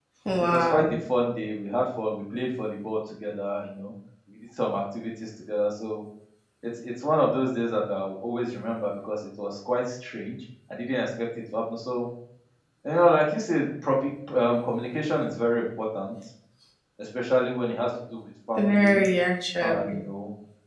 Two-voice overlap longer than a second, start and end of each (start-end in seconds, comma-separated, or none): none